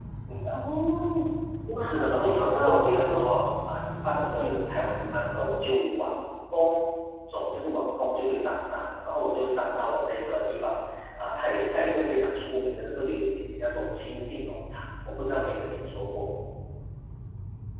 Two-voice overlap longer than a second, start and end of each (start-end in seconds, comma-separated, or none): 1.9-3.2